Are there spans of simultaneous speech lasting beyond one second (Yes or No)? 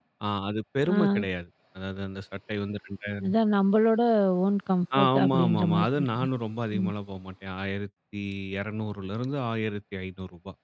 Yes